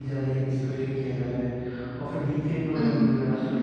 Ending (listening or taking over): listening